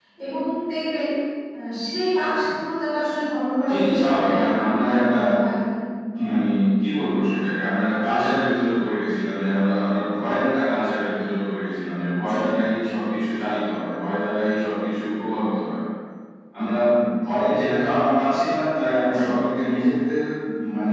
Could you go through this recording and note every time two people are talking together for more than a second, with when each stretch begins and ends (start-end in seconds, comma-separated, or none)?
3.7-5.2